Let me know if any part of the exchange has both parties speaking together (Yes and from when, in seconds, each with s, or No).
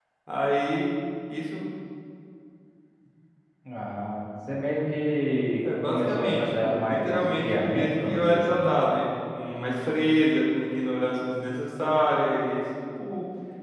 Yes, from 5.6 s